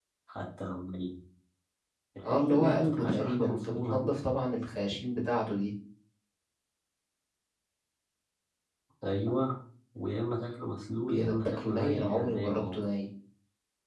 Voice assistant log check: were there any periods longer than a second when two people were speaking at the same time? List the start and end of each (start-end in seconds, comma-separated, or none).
2.2-4.1, 11.1-12.8